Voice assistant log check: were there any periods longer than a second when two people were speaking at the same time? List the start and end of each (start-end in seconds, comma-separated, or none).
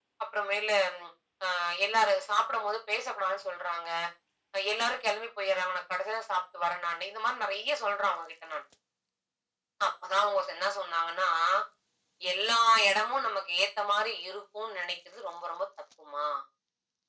none